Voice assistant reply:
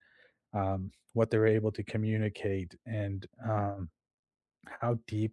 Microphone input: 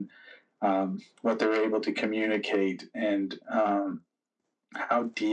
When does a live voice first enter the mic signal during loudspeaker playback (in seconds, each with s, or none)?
none